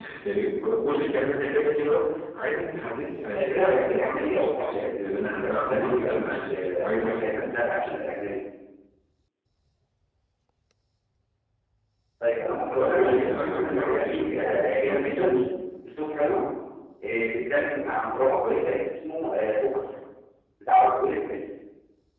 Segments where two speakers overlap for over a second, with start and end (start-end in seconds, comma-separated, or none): 3.3-7.5, 12.8-15.4